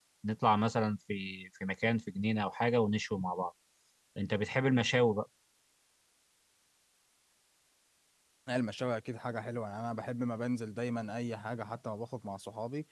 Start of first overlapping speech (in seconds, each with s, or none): none